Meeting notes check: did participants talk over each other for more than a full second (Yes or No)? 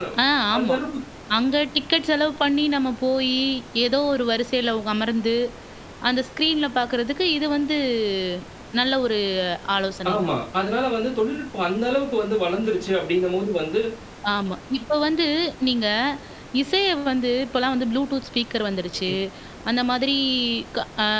No